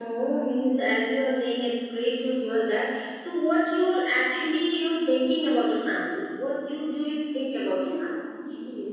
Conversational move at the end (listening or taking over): taking over